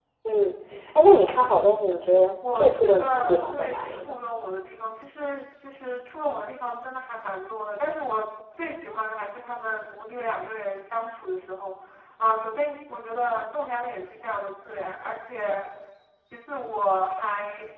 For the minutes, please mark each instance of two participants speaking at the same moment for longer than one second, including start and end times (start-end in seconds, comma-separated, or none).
2.6-4.2